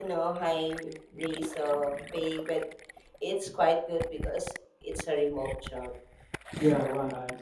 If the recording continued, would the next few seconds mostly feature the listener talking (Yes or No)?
Yes